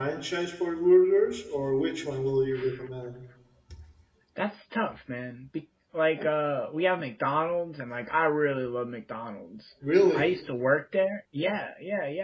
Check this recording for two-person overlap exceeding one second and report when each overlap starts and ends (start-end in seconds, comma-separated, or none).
none